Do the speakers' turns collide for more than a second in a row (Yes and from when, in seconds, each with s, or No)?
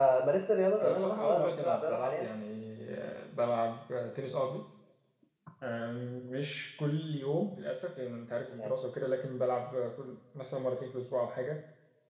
Yes, from 0.8 s